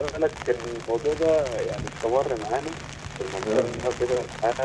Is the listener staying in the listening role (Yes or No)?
Yes